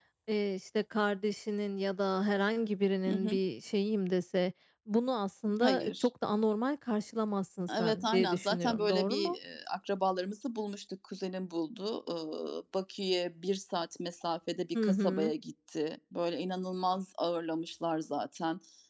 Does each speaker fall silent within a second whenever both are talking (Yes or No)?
No